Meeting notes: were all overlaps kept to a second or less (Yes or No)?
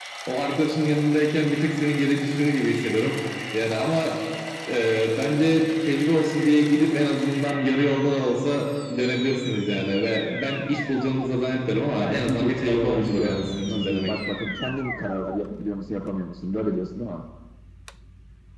No